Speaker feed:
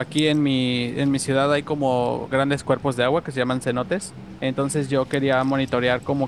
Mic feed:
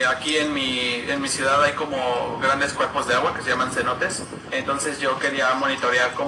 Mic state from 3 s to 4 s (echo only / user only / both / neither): echo only